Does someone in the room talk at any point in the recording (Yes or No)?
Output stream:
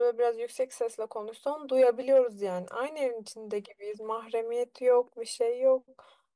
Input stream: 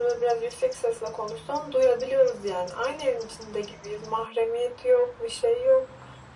No